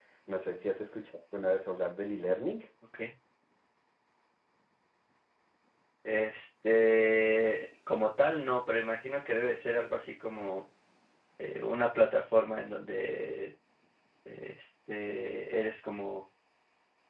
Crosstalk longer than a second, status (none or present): none